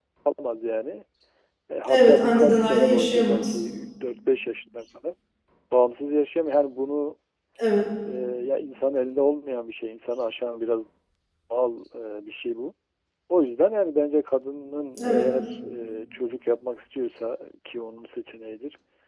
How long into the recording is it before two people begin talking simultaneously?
2 s

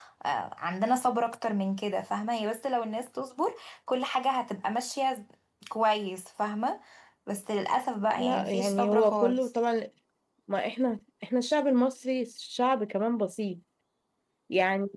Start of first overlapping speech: 8 s

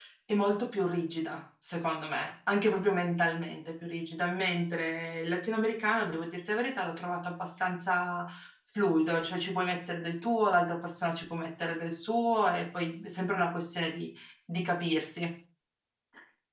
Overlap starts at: none

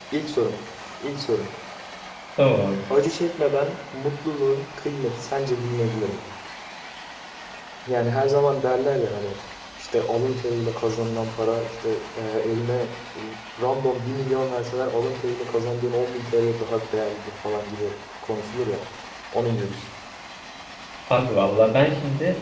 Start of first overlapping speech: none

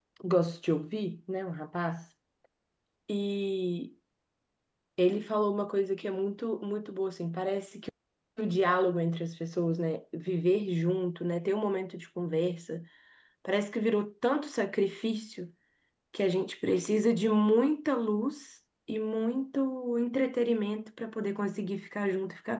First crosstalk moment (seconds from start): none

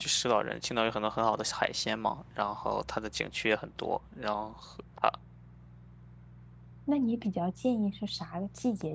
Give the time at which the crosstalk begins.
none

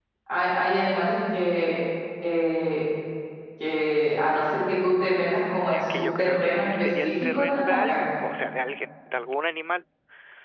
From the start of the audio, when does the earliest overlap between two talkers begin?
6 s

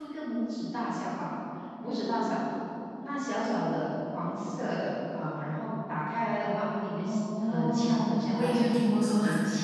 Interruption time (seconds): 7 s

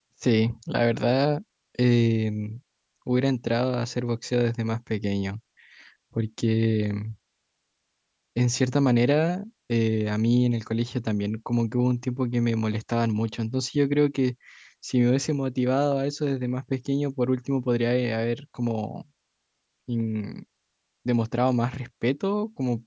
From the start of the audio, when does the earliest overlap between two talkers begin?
none

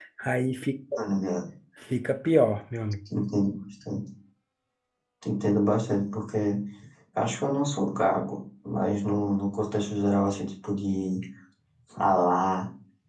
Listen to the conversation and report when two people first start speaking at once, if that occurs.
none

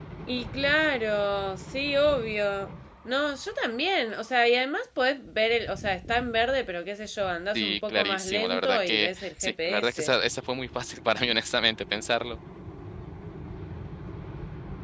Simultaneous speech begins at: 8 s

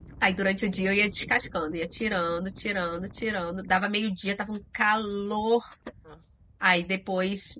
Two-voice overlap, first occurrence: none

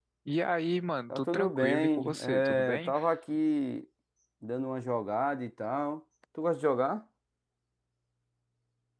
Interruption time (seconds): 1 s

